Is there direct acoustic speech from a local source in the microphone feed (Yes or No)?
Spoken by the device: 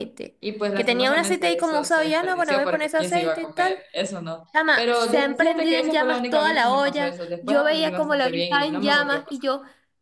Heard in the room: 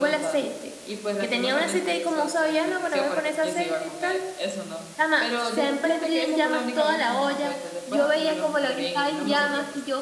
No